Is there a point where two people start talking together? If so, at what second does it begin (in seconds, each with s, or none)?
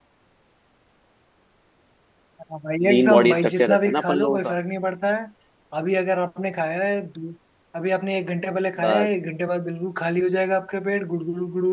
2.9 s